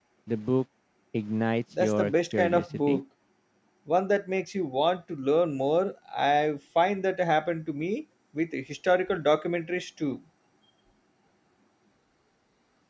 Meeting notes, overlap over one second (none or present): present